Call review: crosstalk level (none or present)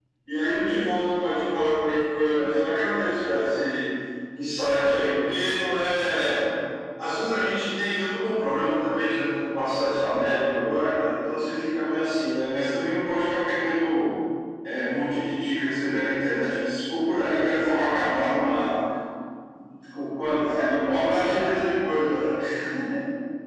present